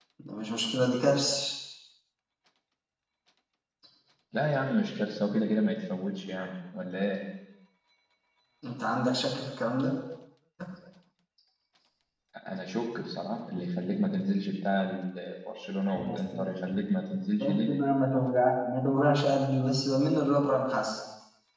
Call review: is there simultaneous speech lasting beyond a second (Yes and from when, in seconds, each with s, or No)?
No